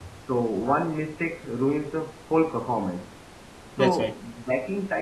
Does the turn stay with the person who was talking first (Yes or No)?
Yes